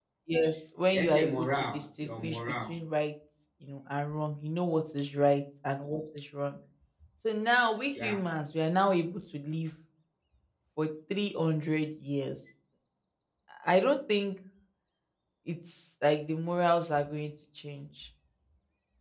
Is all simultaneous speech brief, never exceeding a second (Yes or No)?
No